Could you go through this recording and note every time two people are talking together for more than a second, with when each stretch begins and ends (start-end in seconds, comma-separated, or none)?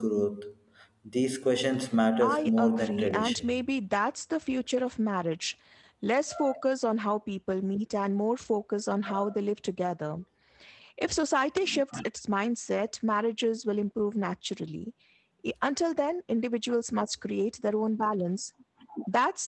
2.2-3.5